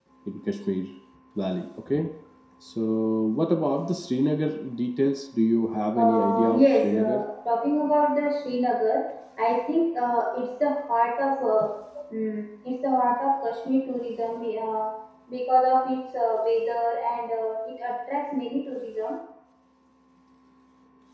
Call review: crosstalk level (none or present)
present